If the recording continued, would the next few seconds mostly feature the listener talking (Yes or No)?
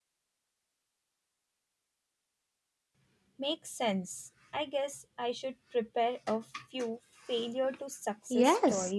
Yes